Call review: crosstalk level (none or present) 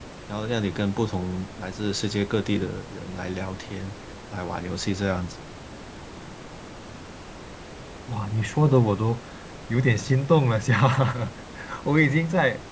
none